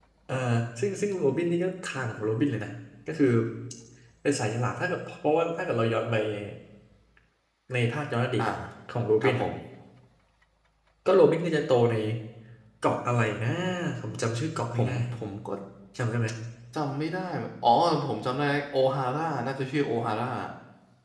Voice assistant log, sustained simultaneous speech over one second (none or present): none